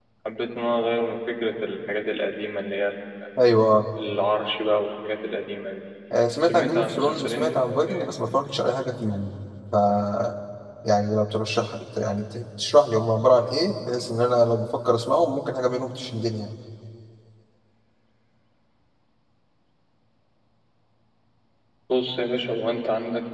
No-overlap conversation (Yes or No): No